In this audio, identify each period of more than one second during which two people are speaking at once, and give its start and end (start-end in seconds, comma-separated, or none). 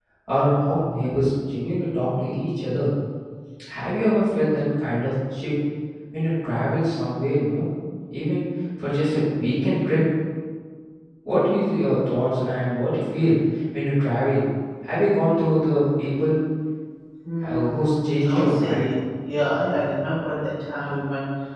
17.4-18.9